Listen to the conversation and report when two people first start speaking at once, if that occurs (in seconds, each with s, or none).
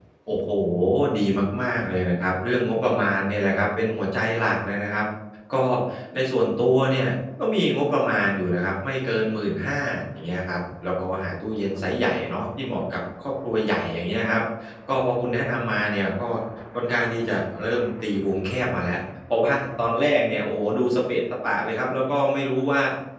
none